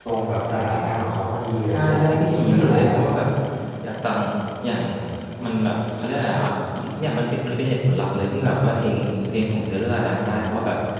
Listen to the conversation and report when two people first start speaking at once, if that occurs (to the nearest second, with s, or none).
2 s